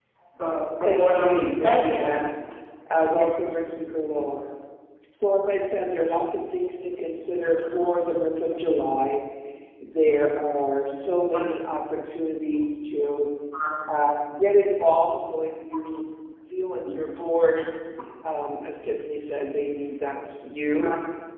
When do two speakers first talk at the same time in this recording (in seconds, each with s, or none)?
0.8 s